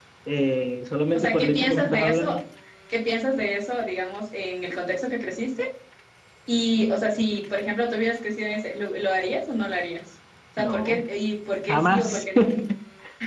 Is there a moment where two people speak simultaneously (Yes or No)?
Yes